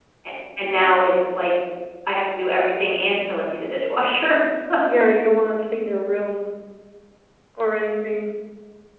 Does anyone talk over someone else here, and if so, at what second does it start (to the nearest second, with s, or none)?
none